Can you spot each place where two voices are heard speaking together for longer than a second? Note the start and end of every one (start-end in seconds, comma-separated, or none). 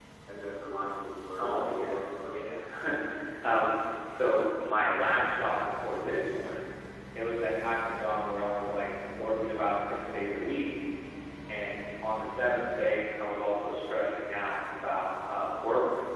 1.4-2.6